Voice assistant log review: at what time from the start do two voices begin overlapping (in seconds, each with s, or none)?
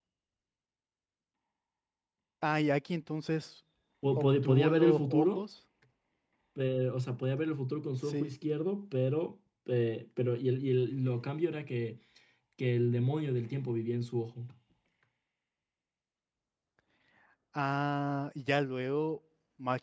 4.2 s